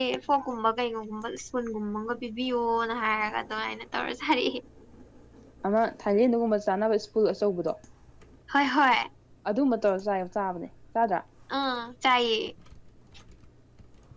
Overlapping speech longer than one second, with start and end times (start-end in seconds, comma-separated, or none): none